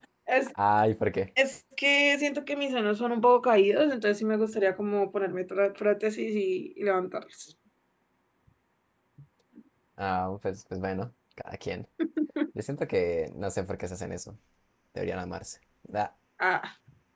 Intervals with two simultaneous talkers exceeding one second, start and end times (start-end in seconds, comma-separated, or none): none